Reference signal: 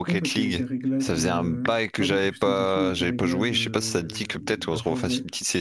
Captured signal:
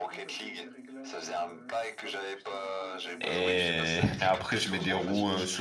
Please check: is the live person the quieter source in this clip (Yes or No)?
No